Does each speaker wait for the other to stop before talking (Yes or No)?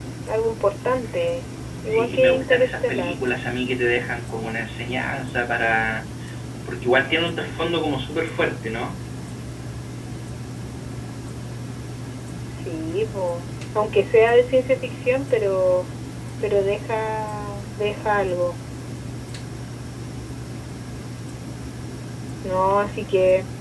No